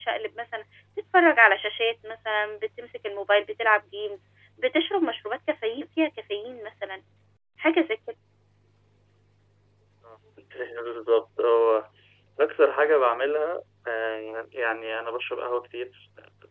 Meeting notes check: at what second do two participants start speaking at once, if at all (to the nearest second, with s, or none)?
none